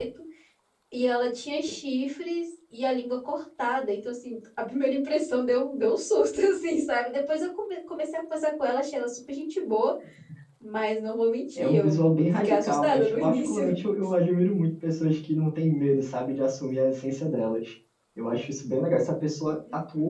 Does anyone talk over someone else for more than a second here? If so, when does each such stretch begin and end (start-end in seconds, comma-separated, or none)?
11.6-13.7